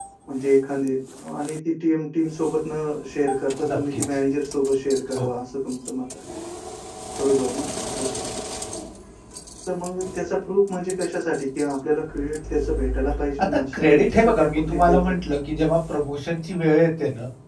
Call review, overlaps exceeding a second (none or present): present